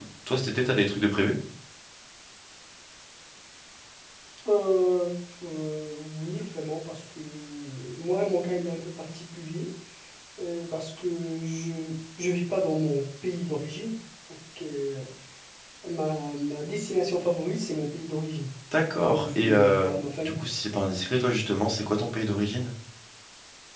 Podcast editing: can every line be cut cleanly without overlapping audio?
No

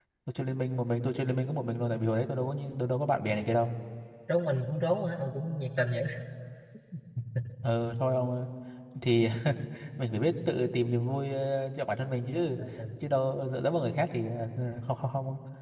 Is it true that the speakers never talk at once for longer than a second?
Yes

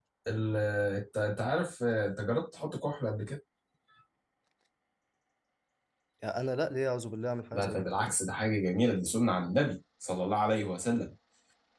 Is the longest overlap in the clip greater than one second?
No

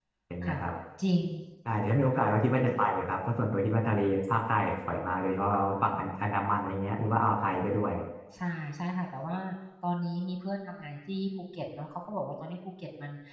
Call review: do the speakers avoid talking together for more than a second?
Yes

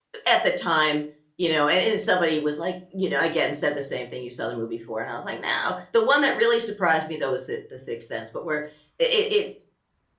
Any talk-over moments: No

